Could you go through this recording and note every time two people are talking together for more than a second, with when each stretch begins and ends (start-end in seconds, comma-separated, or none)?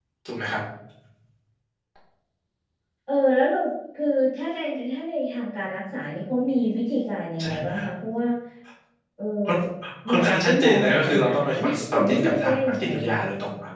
10.1-13.1